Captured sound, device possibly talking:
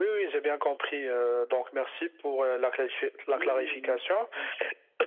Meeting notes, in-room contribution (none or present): present